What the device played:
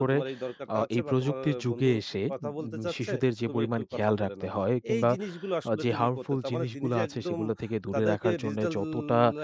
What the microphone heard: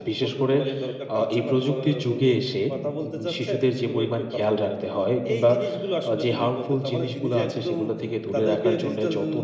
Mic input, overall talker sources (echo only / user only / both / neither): echo only